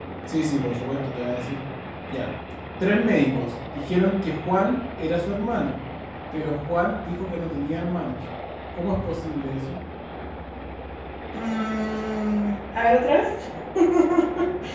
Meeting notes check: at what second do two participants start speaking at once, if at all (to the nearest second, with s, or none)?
none